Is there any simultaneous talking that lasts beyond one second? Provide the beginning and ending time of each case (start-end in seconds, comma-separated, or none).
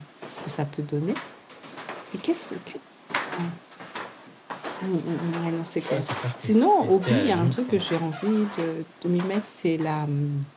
5.9-7.8